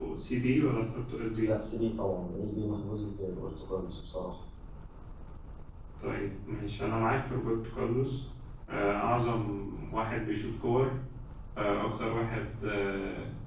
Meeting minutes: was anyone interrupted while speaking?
No

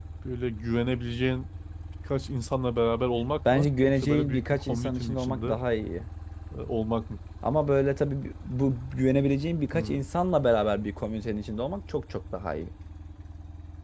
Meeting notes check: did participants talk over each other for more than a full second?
Yes, from 3.5 s

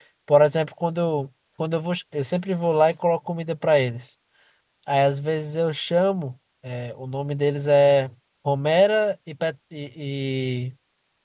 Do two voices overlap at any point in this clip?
No

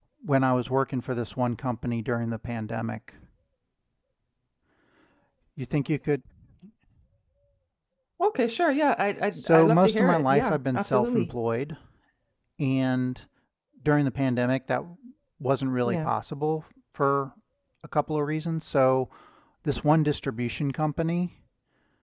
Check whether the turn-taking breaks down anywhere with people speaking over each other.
Yes, from 9.5 s

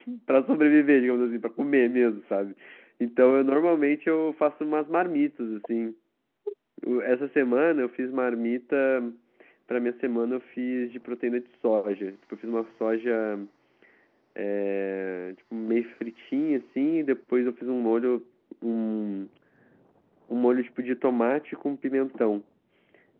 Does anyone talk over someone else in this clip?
No

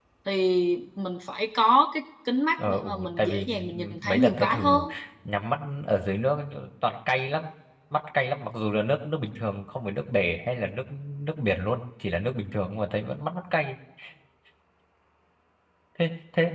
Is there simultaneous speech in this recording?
Yes, from 2.6 s

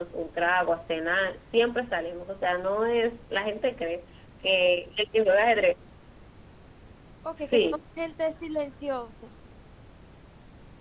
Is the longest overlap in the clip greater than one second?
No

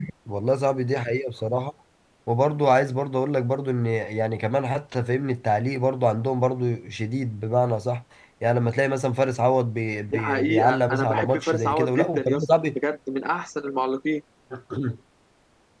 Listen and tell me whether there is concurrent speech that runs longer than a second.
Yes, from 10.1 s

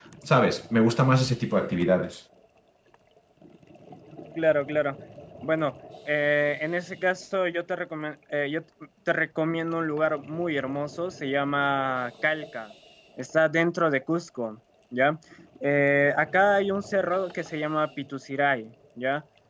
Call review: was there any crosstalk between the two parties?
No

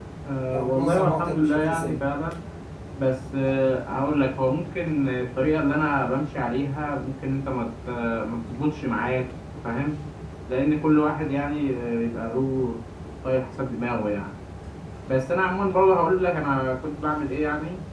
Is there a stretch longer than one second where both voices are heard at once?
Yes, from 0.5 s

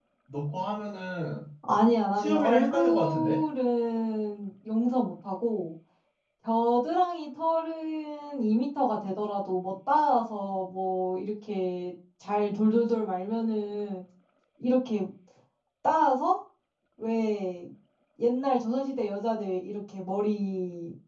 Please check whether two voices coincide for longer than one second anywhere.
Yes, from 2.2 s

